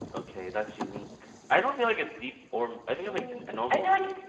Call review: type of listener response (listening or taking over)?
taking over